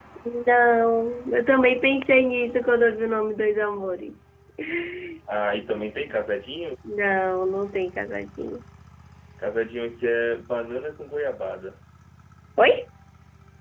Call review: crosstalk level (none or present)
none